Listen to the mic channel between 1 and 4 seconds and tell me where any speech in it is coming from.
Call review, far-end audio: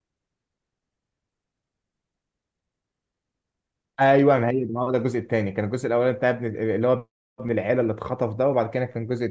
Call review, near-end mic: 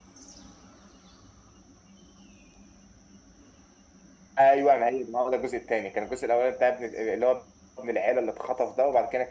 neither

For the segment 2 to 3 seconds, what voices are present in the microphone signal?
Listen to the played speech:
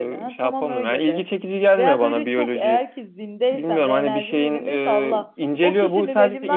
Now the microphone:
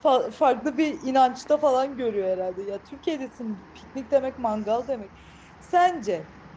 user only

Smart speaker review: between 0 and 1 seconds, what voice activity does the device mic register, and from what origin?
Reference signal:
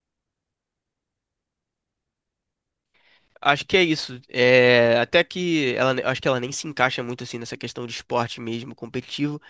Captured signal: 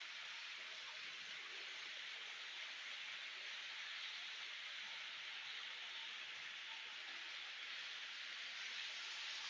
neither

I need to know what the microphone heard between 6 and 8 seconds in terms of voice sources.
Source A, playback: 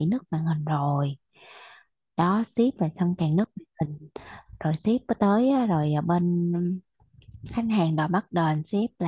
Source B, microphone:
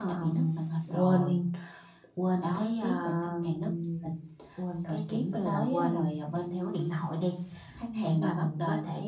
both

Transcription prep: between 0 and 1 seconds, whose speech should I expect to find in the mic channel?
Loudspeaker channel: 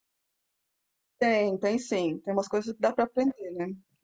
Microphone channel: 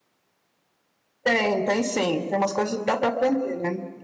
neither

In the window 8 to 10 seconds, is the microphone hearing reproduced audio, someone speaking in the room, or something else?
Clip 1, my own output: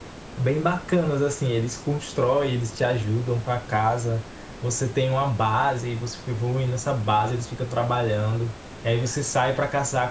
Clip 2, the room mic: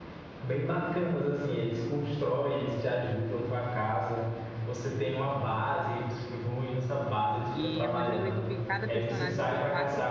both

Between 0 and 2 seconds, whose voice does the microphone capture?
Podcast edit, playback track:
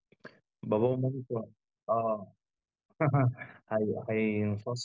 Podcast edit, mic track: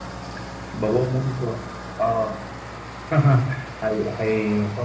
echo only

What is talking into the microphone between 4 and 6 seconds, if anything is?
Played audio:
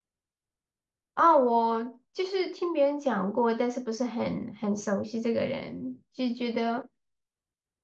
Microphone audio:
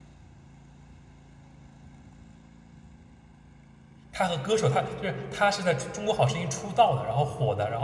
user only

